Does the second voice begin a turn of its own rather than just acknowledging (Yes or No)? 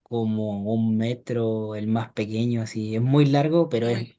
No